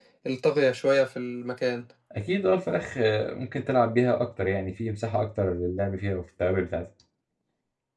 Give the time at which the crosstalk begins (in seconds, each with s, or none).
none